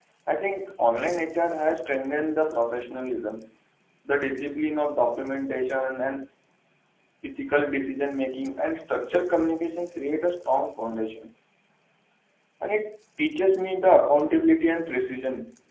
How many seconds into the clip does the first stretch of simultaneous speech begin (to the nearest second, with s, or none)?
none